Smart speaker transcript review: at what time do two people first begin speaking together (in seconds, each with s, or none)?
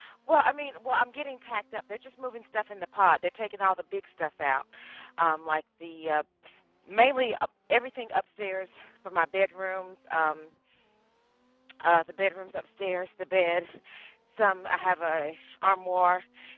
none